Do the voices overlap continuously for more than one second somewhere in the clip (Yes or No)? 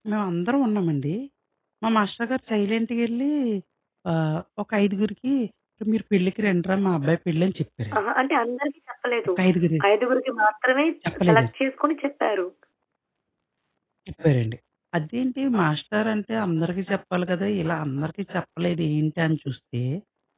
No